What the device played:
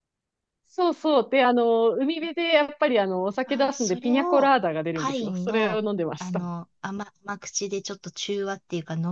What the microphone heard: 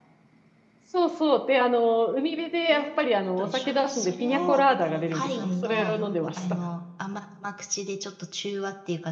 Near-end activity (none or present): present